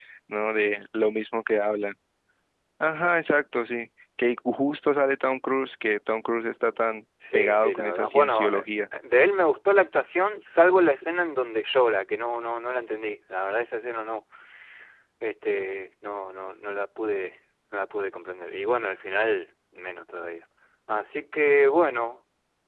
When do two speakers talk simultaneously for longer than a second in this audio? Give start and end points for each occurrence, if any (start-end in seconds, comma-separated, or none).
7.3-8.6